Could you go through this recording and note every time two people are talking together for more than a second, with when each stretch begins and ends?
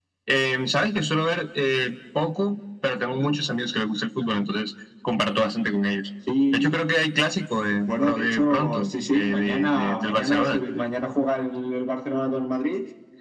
7.8-10.6

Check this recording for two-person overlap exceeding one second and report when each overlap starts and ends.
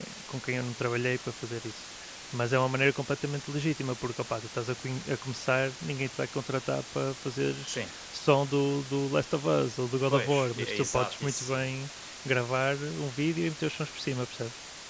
10.1-11.7

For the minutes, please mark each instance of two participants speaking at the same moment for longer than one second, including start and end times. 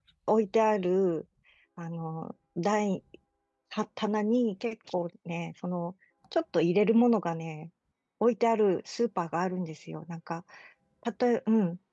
none

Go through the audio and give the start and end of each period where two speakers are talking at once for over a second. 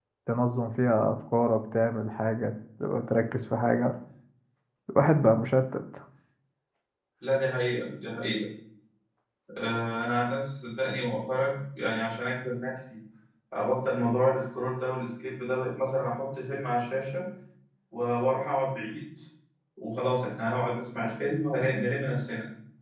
none

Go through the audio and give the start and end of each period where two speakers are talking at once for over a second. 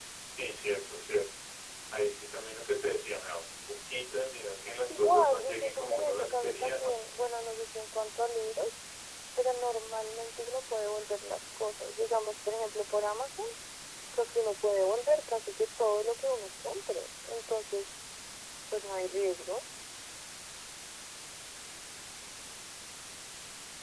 5.0-7.0

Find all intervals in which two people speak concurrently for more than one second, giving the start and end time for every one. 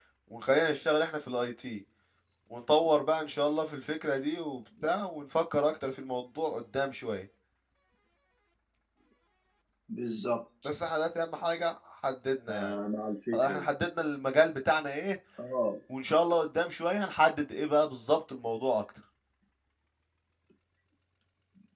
none

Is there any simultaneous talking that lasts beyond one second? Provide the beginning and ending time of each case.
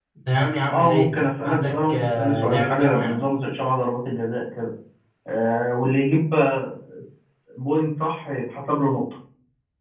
0.7-3.2

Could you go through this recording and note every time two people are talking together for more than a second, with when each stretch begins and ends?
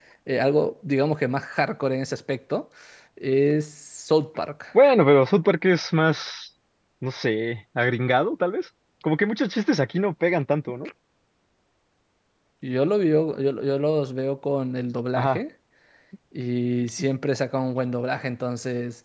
none

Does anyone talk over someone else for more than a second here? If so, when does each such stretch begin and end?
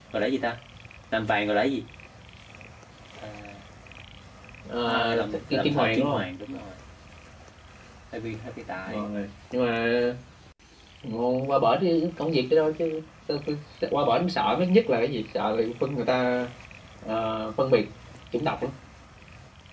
4.9-6.2

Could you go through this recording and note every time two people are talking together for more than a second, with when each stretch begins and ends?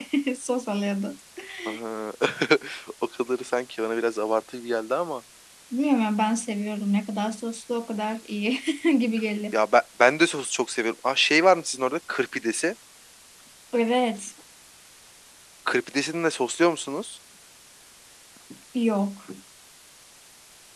none

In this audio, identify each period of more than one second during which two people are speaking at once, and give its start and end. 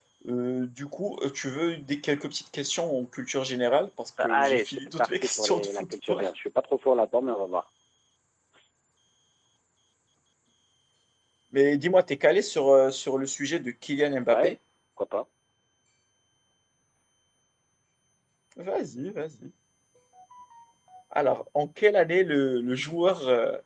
4.2-6.2

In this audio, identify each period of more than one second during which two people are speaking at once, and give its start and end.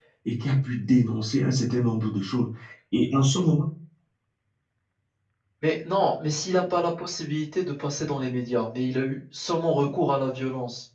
none

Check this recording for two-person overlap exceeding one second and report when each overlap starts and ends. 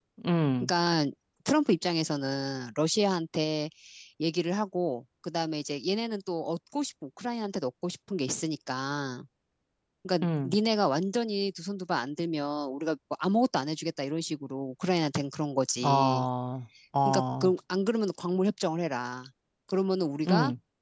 none

